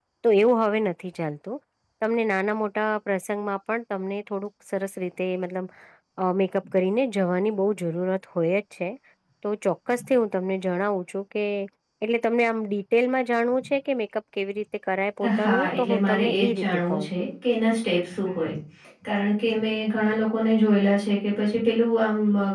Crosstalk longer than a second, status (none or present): present